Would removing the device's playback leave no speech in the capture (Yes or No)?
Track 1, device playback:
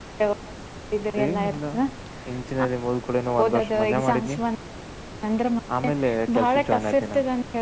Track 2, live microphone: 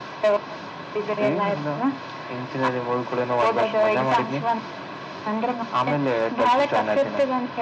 Yes